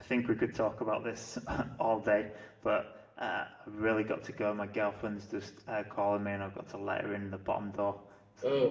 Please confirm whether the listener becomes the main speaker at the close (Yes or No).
Yes